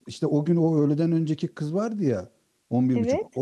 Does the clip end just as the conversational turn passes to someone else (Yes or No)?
No